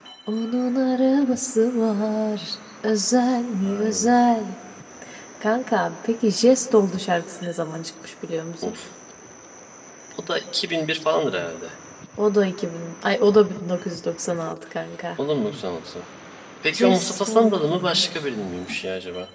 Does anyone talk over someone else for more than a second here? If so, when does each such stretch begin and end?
16.7-18.0

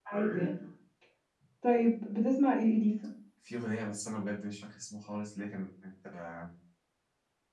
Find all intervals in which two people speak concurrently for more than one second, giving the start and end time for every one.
none

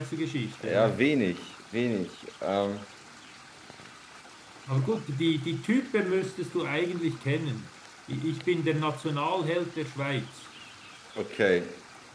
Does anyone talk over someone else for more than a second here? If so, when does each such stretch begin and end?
none

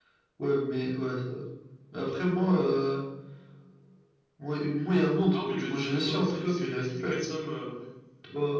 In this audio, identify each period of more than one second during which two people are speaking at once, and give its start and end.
5.3-7.2

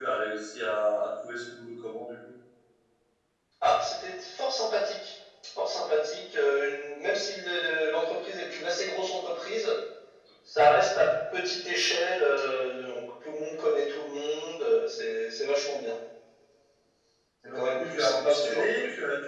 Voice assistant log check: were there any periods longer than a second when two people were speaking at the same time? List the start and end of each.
17.5-18.7

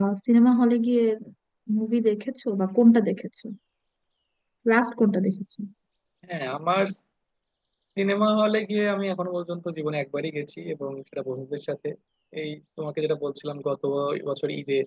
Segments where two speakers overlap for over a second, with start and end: none

